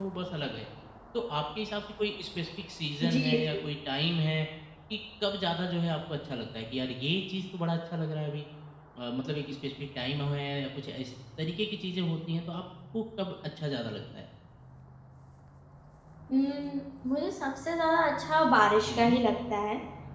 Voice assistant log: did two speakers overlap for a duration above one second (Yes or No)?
No